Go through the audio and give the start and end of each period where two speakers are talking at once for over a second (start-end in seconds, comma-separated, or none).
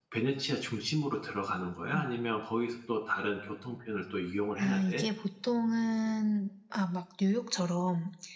none